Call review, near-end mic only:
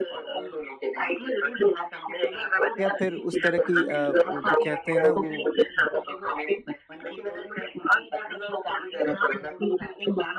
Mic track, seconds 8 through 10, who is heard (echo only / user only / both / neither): echo only